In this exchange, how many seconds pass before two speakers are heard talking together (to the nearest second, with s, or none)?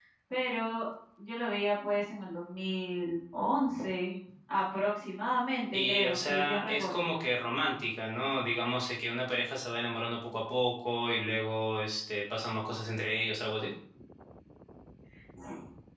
6 s